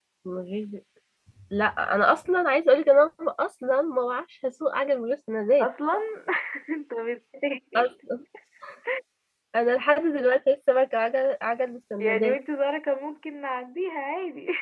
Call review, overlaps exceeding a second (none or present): none